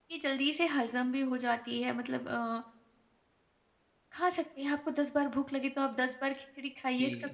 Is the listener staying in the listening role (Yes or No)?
No